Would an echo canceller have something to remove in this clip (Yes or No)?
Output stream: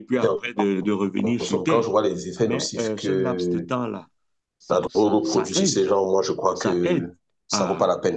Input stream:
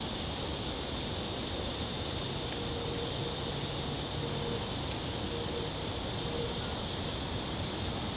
No